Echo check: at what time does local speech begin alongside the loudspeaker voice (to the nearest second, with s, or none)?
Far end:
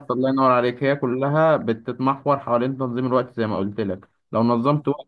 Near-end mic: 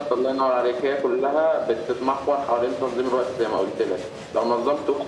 none